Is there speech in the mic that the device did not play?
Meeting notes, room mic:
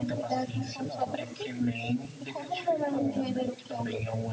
No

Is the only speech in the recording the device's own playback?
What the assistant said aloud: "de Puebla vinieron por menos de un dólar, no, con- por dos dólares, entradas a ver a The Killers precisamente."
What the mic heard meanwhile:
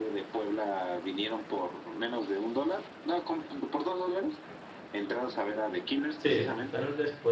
No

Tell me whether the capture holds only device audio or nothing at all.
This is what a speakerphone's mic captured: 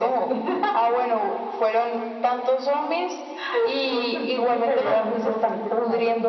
Yes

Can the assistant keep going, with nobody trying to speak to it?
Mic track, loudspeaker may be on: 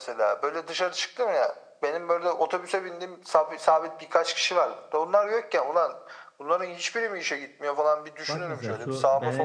No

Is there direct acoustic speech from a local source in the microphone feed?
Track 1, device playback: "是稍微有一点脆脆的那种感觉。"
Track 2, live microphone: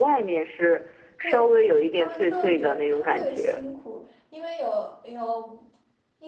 Yes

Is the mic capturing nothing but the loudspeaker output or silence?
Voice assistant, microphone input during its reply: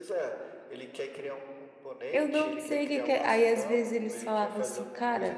No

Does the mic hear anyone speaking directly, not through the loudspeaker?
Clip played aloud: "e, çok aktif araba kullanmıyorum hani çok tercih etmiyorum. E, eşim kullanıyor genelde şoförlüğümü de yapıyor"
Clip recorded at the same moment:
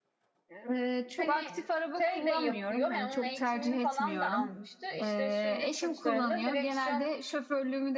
Yes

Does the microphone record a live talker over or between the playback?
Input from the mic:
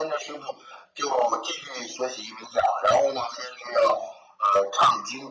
No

